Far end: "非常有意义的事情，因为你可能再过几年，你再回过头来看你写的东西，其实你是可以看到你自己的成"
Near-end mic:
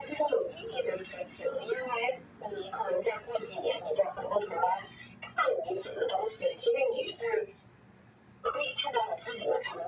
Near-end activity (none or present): none